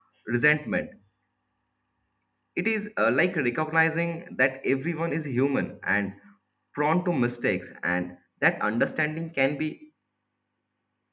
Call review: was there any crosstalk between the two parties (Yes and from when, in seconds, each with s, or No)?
No